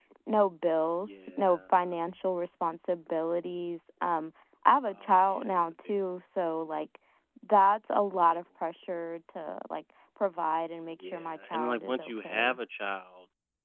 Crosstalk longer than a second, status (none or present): present